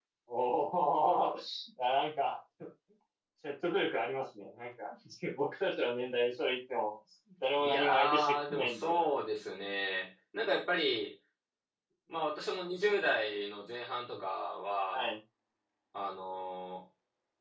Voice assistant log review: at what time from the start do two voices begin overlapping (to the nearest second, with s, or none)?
8 s